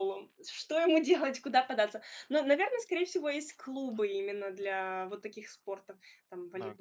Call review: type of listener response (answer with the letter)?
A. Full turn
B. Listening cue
B